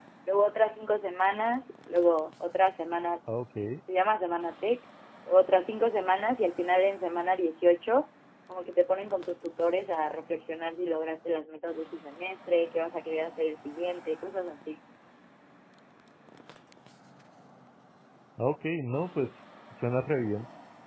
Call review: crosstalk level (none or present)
none